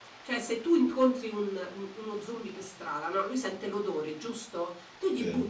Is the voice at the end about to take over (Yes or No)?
No